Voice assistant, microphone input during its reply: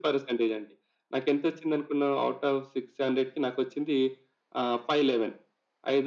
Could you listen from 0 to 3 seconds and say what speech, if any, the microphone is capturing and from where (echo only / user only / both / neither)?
echo only